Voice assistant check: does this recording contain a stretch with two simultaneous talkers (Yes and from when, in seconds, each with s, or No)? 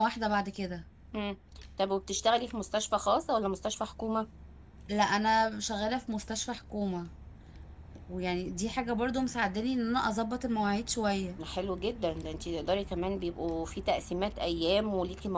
No